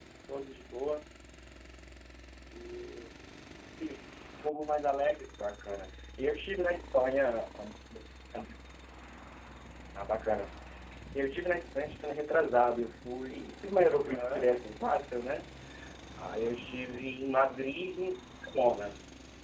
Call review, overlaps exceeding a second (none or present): none